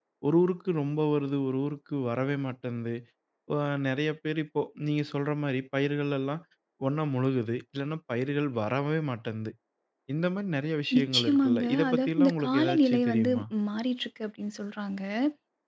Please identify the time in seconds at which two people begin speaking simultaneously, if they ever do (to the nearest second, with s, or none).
11 s